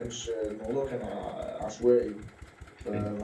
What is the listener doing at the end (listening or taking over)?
listening